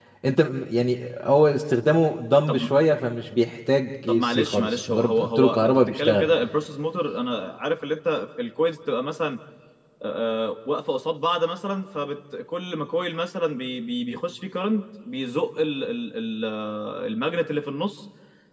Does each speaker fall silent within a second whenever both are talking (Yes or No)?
No